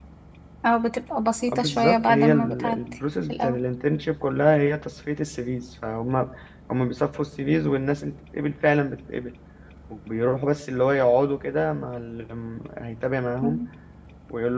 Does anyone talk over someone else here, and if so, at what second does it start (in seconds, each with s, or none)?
1.5 s